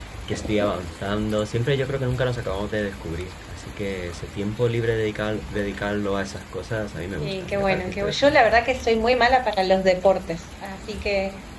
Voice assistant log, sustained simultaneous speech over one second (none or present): present